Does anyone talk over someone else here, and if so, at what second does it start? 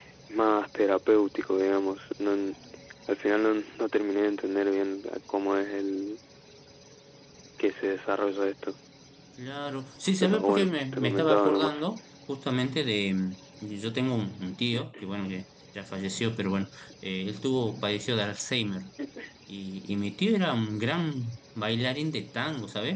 10 s

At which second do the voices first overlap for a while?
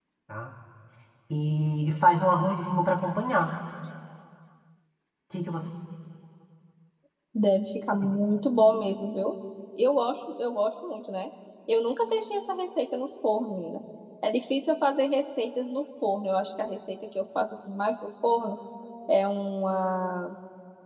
none

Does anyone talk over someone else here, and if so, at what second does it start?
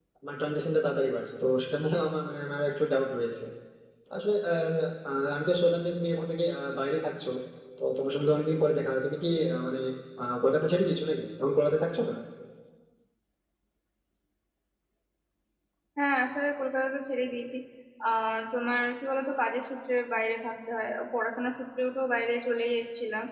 none

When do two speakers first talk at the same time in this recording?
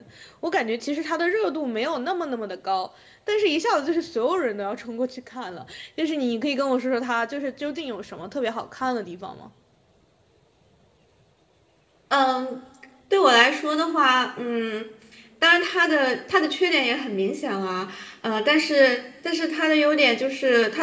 none

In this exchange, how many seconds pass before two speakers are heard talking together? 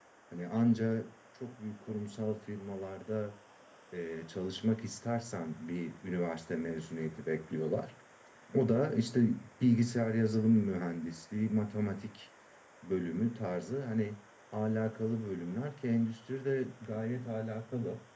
none

